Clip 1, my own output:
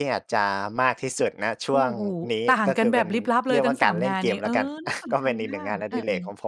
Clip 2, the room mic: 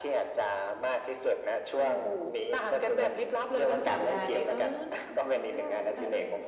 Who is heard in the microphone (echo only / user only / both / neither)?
echo only